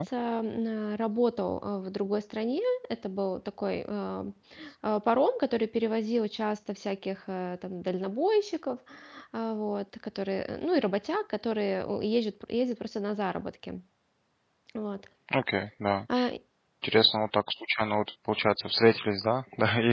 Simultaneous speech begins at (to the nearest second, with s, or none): none